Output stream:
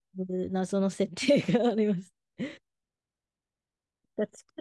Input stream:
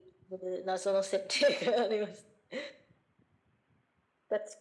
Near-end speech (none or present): none